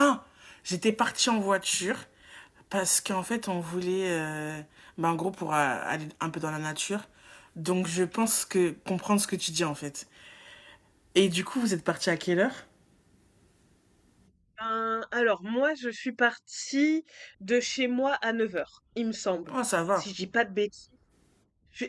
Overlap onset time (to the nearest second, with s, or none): none